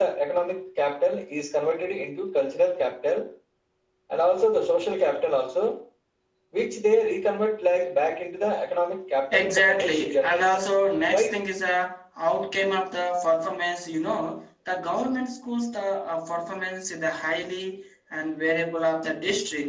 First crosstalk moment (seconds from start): 9.3 s

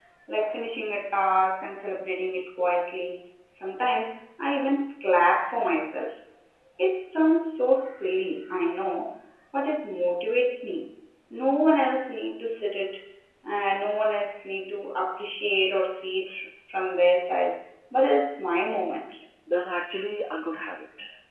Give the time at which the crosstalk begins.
none

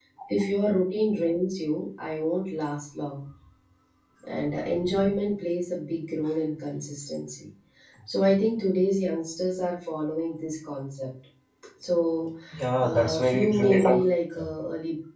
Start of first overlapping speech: 12.8 s

